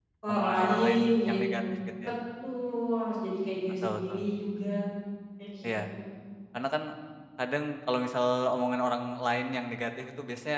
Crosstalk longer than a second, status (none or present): present